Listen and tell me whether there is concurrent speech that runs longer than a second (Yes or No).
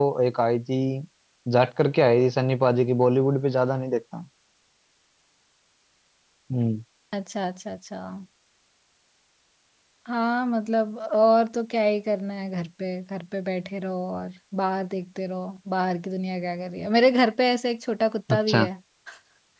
No